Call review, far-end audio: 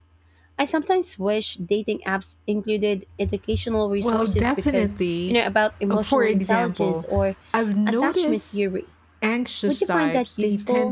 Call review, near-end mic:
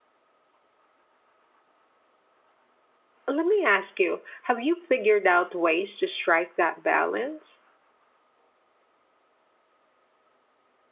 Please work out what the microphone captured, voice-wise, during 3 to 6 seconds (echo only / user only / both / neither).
user only